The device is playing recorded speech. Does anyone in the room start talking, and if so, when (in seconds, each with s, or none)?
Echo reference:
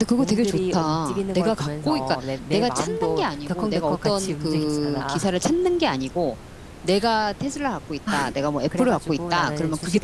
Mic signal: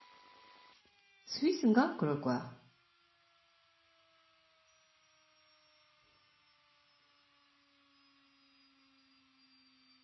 1.3 s